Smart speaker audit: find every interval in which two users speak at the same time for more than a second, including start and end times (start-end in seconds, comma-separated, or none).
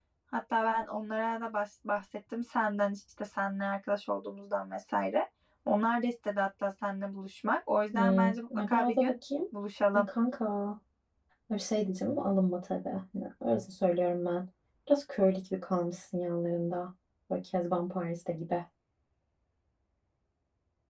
7.9-9.1